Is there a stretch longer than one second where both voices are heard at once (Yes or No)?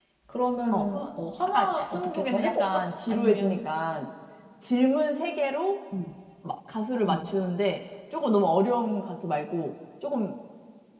Yes